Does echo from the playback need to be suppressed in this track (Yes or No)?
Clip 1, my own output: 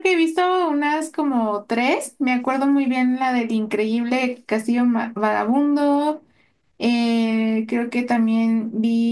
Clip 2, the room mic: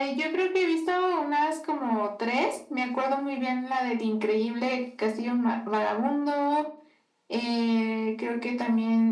Yes